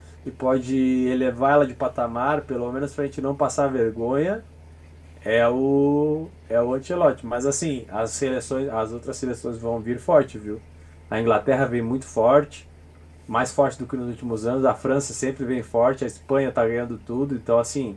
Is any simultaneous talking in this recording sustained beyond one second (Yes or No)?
No